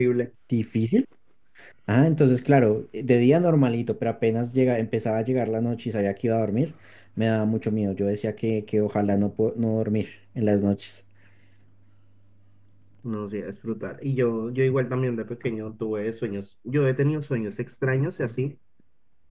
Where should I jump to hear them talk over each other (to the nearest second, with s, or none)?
none